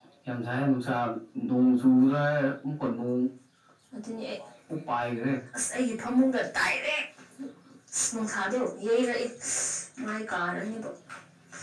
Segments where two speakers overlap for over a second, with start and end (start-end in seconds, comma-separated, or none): none